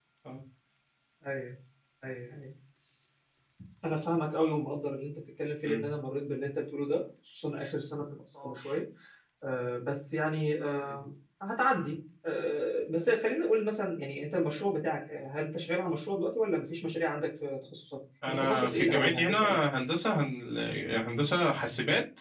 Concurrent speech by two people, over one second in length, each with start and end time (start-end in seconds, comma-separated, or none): 18.3-19.6